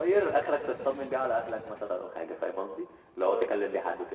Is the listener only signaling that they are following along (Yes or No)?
Yes